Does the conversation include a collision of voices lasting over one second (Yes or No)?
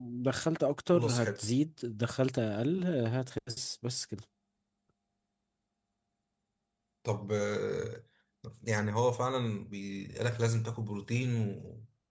No